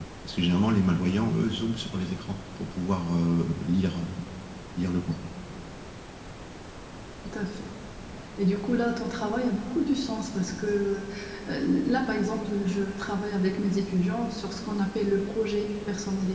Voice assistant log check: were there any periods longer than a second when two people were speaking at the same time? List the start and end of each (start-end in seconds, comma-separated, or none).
none